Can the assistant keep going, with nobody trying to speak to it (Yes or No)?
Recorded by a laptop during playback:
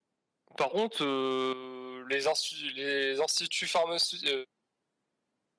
No